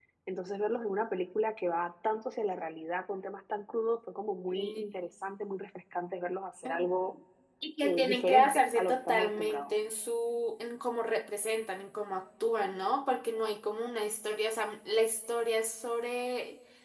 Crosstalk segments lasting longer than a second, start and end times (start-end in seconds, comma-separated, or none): 7.8-9.7